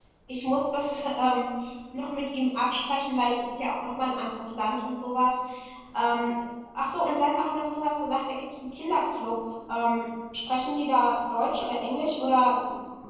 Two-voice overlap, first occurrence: none

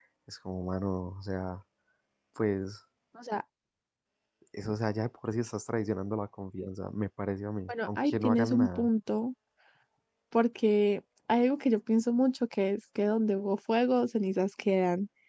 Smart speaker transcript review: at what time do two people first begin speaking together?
8 s

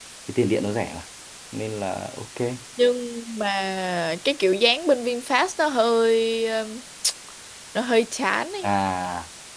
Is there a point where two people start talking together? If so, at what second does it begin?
none

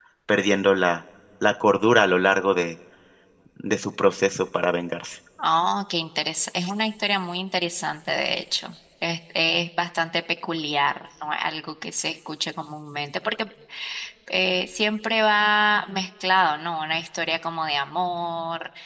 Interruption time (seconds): none

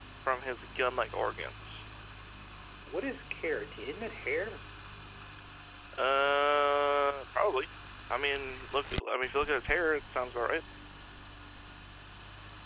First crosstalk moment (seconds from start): none

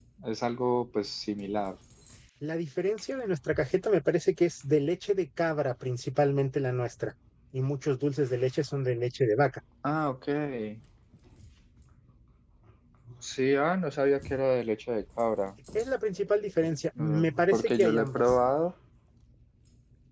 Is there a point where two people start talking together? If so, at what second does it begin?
17 s

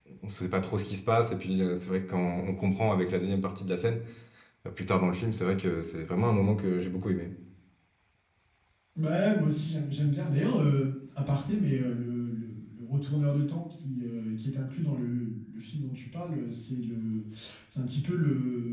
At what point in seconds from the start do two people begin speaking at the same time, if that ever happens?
none

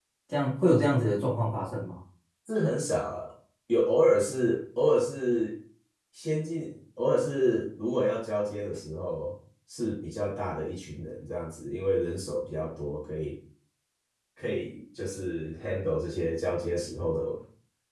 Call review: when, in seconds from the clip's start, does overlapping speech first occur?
none

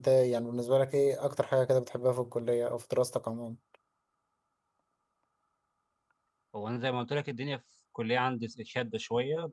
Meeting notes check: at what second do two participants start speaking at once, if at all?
none

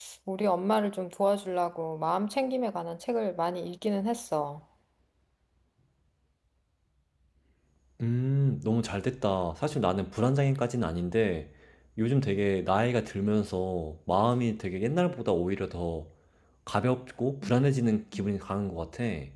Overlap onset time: none

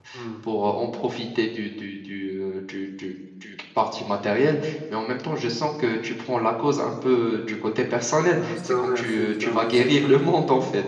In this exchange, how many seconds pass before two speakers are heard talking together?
8 s

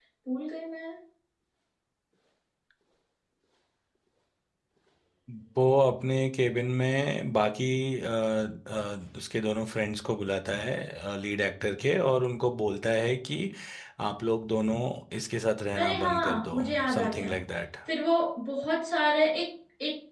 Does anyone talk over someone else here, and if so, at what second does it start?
16 s

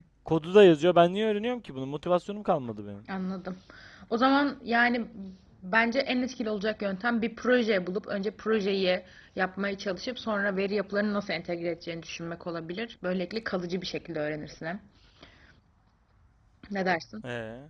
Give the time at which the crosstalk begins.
none

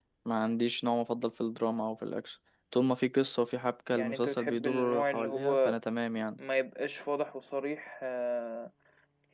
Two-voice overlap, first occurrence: 4 s

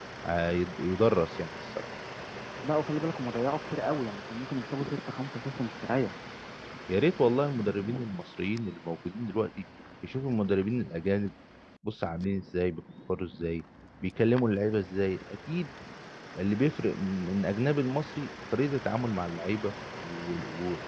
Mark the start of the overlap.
none

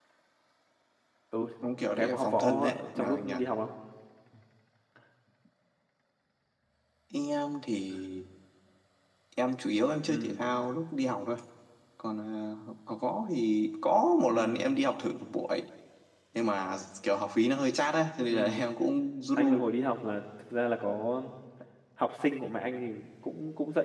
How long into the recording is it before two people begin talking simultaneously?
2 s

